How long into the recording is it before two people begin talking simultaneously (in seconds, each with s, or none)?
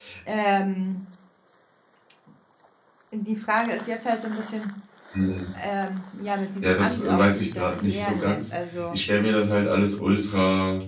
6.6 s